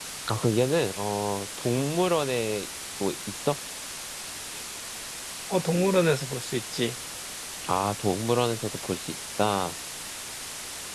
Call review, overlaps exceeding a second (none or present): none